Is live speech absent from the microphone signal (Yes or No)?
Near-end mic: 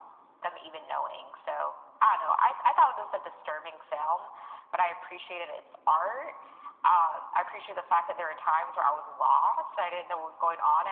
Yes